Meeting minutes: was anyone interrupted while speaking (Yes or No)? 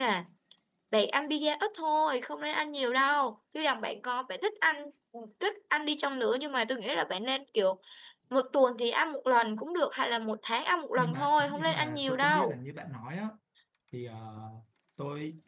Yes